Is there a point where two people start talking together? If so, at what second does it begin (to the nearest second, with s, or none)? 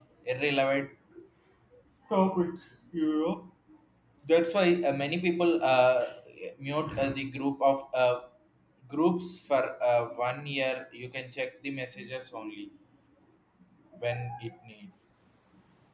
none